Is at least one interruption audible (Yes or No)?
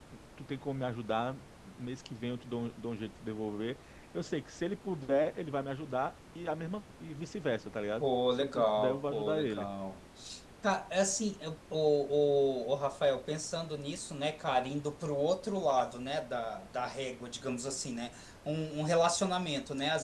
Yes